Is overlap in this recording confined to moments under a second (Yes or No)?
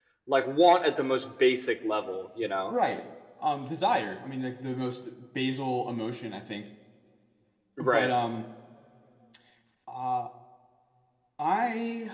Yes